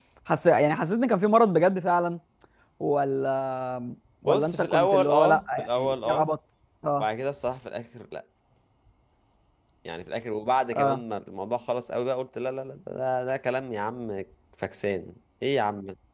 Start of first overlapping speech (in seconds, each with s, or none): 4.2 s